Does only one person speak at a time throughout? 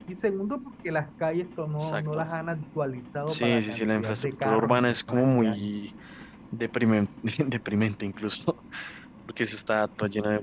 No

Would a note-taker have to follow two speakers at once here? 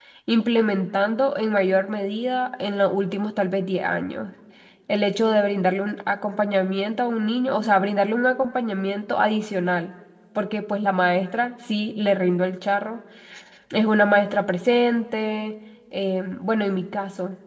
No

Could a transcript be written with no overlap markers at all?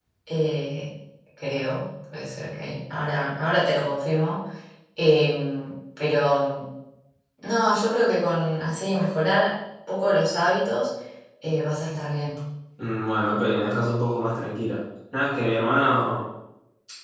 Yes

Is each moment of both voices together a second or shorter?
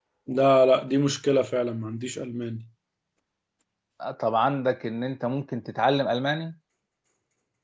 Yes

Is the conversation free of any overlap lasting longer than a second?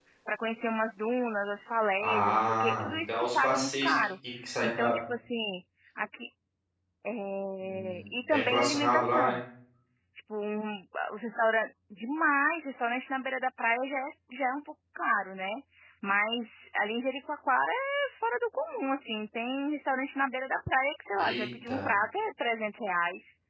No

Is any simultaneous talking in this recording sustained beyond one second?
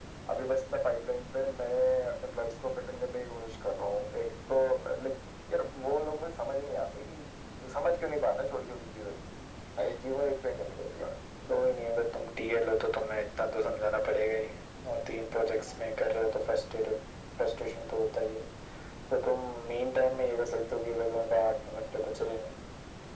No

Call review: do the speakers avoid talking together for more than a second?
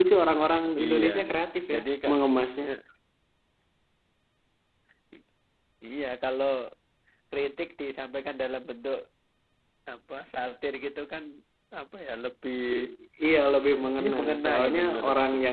No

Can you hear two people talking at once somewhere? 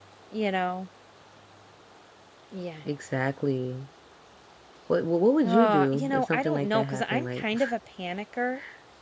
Yes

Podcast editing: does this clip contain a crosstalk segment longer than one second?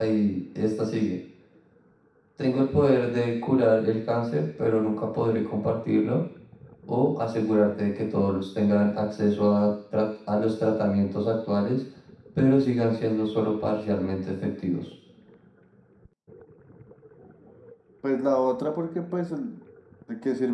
No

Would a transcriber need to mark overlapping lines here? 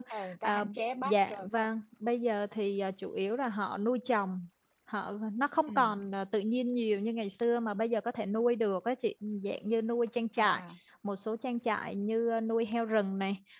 Yes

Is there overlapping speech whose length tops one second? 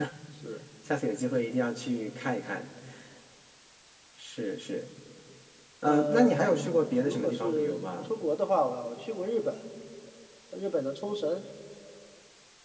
Yes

